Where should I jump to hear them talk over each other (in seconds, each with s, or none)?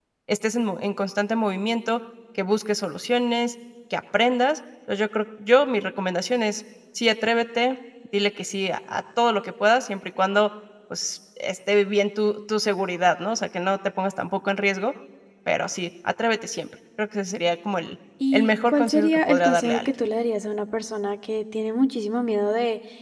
18.2 s